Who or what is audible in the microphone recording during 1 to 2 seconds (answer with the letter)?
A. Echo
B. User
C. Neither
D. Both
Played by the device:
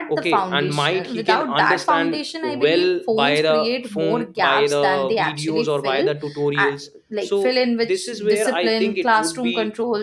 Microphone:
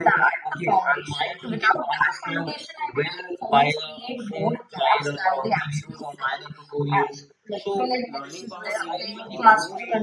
A